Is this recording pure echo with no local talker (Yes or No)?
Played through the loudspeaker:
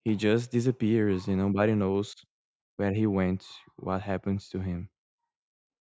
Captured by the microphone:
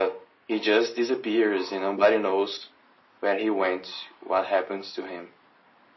Yes